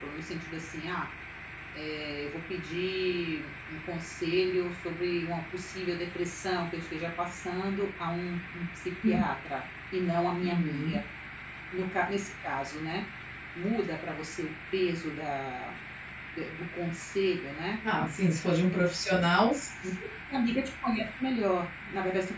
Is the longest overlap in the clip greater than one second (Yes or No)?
No